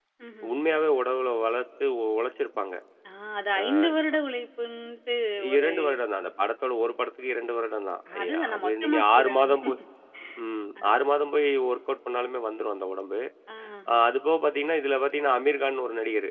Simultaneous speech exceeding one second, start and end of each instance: 8.2-9.6

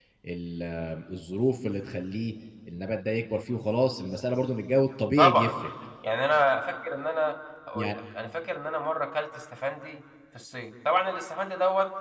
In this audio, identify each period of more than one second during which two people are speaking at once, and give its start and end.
none

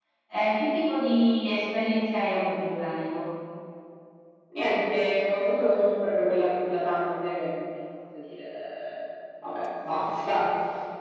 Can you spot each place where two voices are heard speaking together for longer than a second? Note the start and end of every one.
none

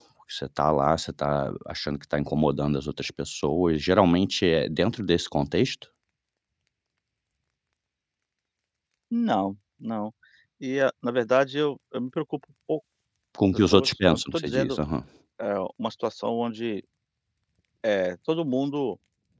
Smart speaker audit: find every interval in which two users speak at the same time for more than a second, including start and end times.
13.4-14.8

